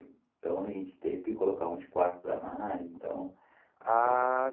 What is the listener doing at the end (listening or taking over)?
taking over